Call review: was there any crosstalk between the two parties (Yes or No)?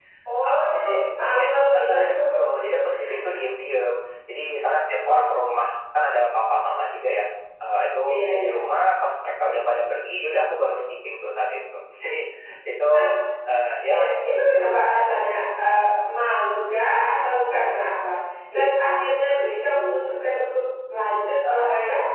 Yes